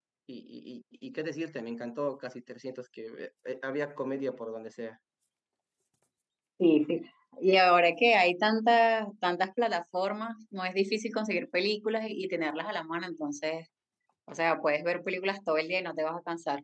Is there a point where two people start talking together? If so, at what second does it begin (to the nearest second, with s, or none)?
none